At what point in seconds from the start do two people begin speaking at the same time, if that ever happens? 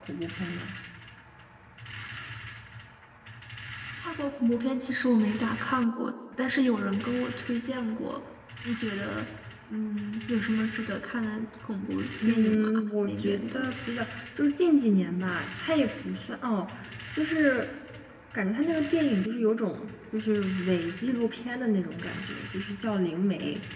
12.2 s

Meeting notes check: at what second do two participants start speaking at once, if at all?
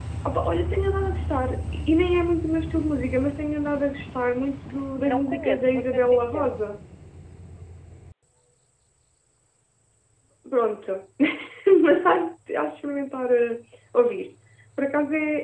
5.0 s

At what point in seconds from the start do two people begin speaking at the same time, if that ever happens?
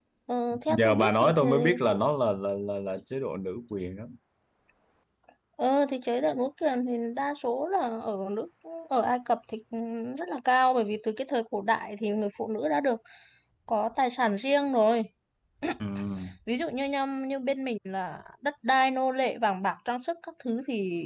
0.7 s

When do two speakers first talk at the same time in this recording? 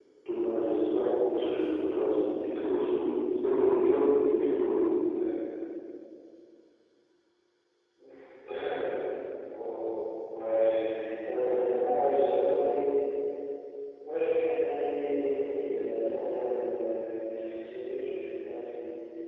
none

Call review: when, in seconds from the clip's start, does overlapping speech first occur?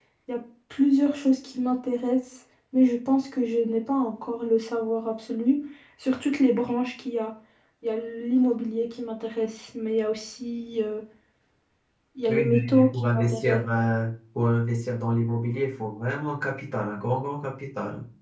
12.3 s

